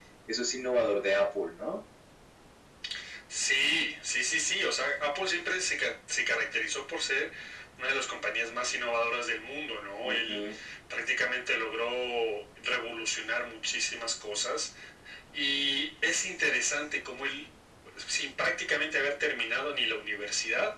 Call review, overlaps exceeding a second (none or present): none